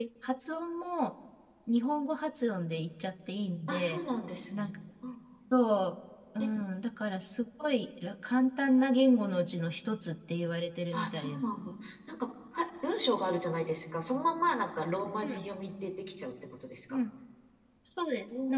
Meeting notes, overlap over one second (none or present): none